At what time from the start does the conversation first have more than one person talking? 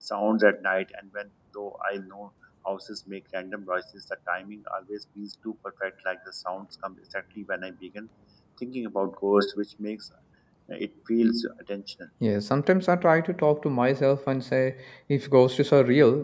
none

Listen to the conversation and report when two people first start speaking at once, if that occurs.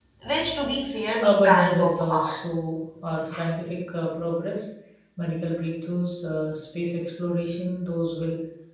1.2 s

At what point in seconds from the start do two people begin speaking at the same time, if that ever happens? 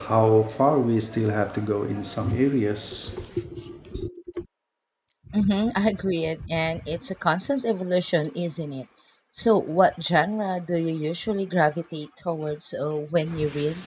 none

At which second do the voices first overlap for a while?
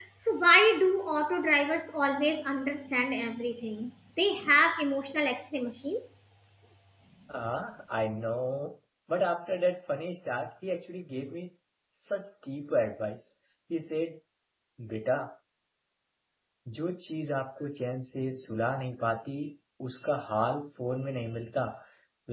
none

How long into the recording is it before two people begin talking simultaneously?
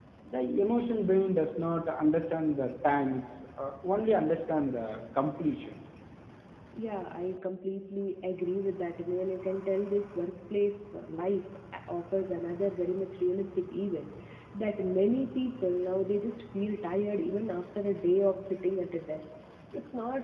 none

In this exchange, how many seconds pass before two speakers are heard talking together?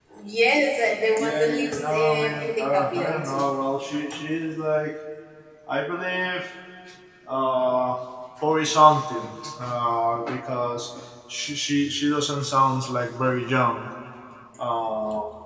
1.2 s

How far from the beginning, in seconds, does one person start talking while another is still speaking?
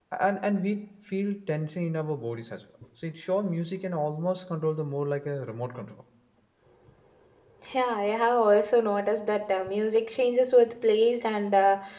none

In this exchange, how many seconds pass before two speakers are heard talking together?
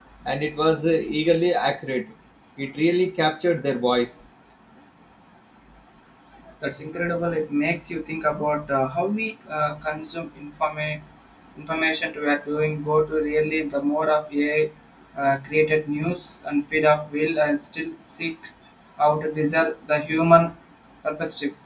none

